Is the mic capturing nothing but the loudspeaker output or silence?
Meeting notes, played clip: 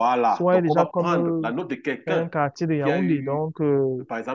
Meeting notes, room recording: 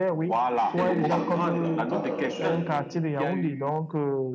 No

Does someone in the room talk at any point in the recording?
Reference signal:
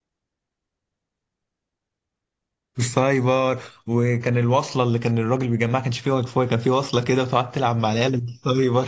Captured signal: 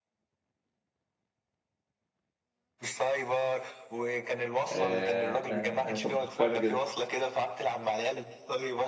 Yes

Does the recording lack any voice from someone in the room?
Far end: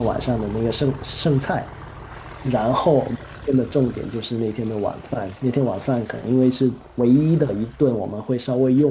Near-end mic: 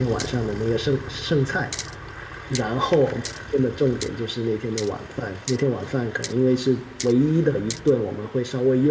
Yes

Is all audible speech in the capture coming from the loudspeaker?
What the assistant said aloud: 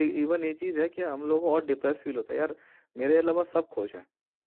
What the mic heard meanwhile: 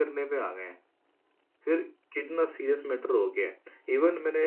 No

